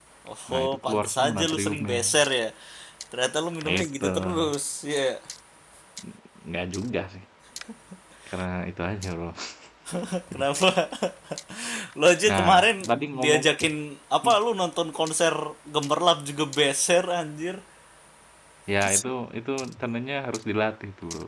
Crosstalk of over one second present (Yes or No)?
Yes